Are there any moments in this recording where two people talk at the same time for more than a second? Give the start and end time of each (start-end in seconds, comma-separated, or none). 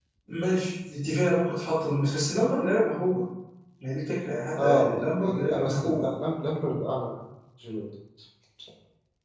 4.6-6.1